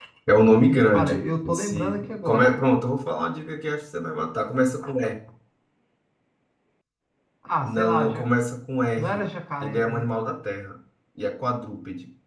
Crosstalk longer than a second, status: present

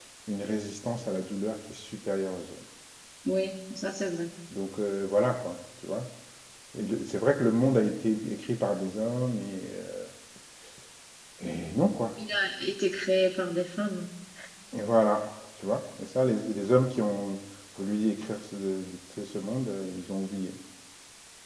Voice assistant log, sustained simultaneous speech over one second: none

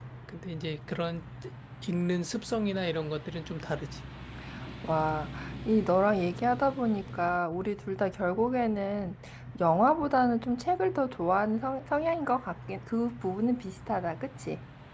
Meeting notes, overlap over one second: none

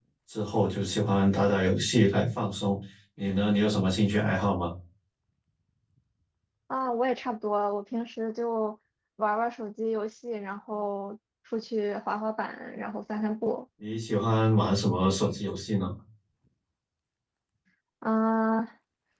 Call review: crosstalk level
none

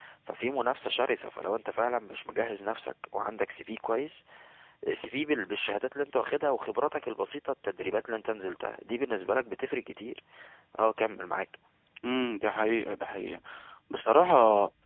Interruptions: none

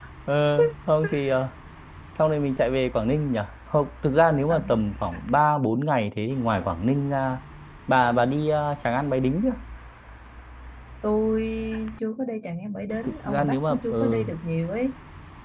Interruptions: present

